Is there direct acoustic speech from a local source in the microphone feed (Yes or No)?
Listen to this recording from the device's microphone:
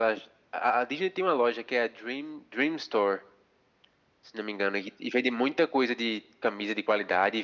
No